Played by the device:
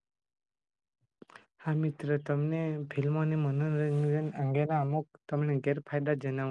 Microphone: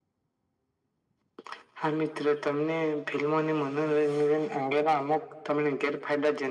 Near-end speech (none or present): none